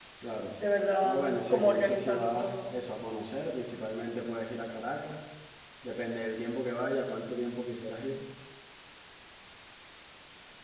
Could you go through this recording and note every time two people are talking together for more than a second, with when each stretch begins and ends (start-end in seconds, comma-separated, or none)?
1.0-2.7